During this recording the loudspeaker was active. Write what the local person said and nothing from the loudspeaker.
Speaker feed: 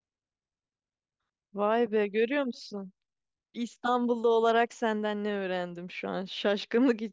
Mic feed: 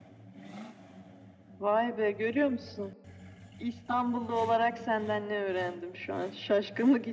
none

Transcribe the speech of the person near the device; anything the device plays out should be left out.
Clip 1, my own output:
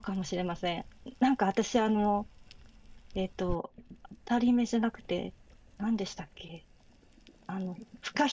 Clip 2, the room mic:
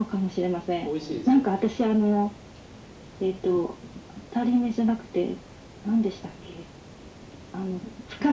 美味しいですよね。

